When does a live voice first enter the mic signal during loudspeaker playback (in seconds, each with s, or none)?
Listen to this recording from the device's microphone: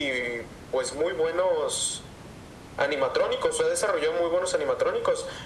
none